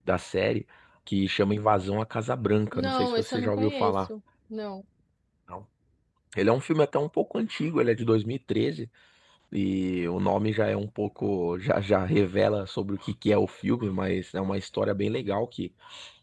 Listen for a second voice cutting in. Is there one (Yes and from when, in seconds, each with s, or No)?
Yes, from 2.7 s